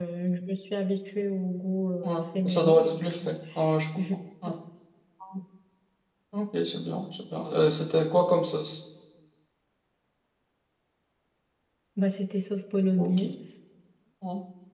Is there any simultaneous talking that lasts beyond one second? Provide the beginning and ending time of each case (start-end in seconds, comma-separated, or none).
2.0-3.3